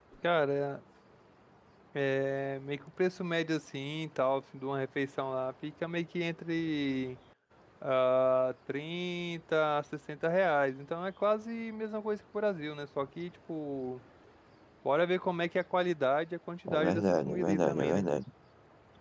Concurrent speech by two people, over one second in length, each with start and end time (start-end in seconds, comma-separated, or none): 16.7-18.1